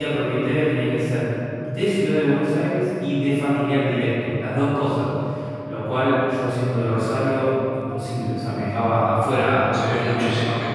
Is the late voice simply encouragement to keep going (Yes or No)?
No